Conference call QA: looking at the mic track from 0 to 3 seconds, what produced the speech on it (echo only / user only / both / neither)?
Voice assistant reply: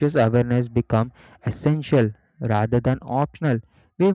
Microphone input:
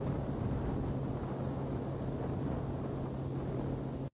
neither